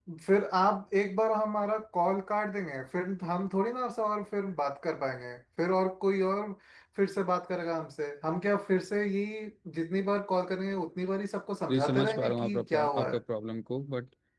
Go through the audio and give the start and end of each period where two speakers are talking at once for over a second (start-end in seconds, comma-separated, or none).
11.7-13.2